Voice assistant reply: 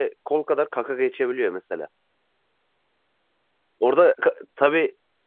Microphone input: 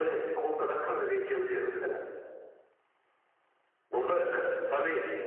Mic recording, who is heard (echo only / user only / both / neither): echo only